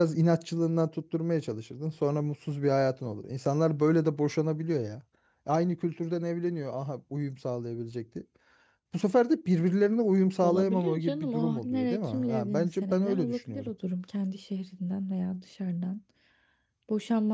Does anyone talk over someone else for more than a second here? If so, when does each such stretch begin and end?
10.4-13.7

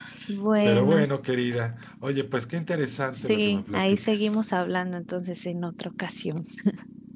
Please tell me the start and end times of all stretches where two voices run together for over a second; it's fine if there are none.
3.2-4.4

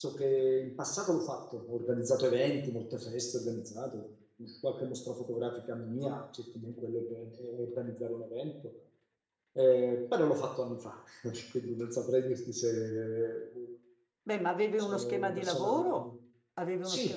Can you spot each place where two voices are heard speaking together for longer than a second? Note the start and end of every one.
14.8-16.1

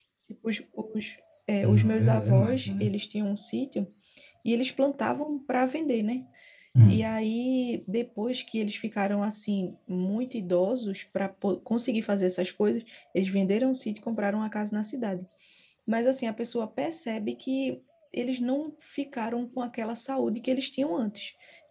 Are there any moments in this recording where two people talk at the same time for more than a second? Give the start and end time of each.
1.6-2.9

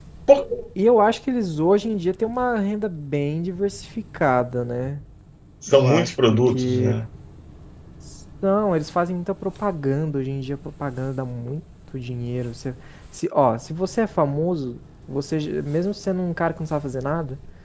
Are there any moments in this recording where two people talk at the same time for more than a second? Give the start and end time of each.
5.7-7.0

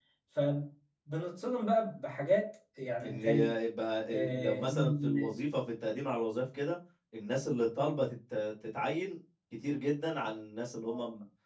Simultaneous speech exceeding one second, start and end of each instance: 4.1-5.3

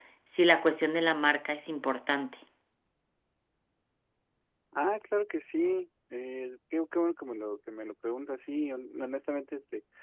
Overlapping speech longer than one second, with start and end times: none

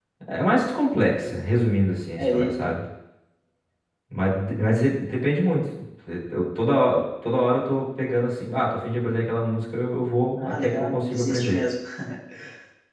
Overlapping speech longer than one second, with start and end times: 10.4-11.6

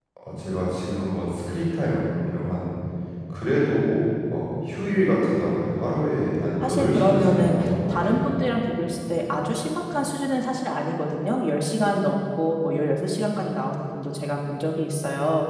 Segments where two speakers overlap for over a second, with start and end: 6.6-8.2

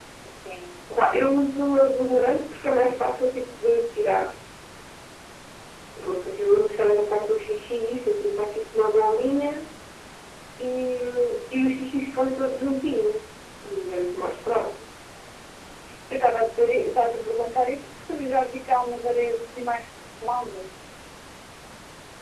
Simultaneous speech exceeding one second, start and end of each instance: none

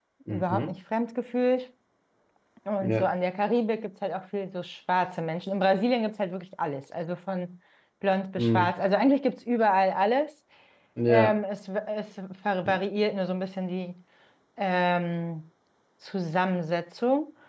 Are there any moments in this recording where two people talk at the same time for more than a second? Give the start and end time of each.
none

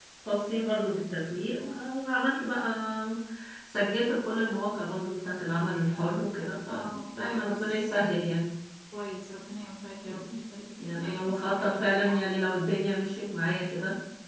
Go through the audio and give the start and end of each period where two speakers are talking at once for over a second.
6.7-8.0, 10.8-12.2

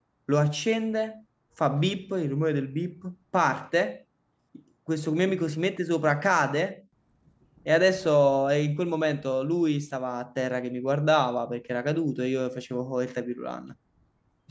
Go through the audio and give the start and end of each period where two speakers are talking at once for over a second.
none

